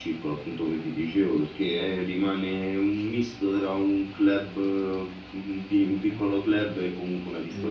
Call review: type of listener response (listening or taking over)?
taking over